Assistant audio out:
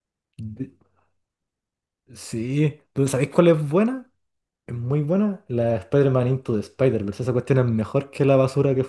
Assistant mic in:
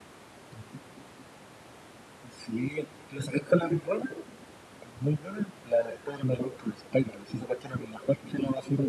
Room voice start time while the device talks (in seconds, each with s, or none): none